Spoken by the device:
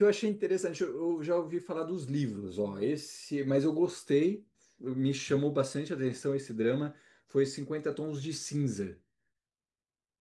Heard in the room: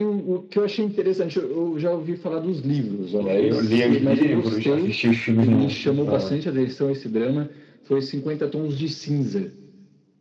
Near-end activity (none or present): present